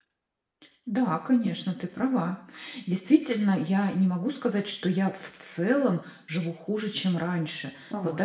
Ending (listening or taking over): listening